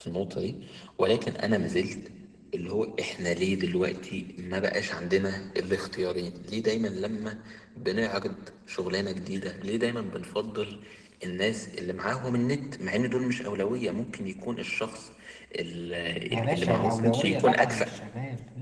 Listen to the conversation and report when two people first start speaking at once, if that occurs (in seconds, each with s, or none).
16.3 s